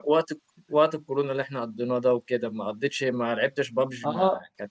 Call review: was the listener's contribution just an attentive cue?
No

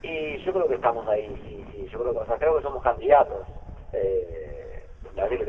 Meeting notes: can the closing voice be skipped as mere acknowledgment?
Yes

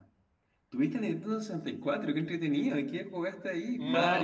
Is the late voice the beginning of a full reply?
Yes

